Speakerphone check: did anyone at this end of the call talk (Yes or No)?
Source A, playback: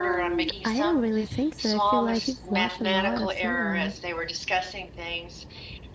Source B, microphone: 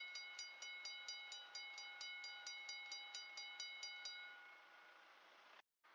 No